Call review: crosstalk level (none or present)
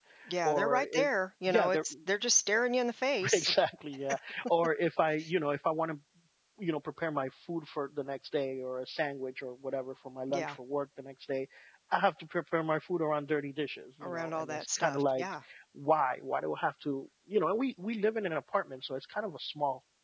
present